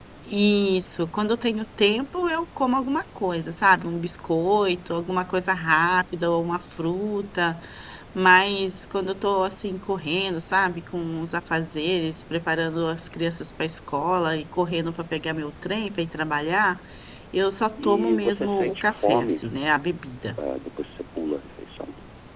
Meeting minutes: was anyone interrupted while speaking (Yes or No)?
Yes